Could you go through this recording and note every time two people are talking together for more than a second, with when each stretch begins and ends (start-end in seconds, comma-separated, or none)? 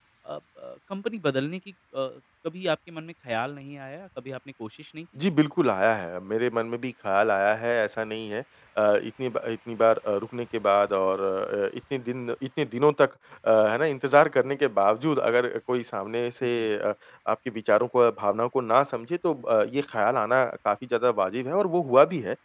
none